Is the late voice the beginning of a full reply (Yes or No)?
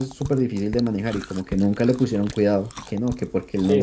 Yes